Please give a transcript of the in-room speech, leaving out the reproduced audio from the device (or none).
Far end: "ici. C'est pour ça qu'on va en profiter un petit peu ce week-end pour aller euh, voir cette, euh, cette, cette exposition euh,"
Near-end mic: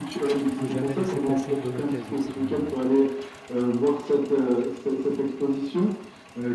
Il faut jamais laisser passer une bonne occasion, c'est bien vrai.